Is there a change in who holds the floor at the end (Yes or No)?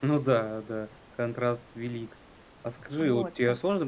No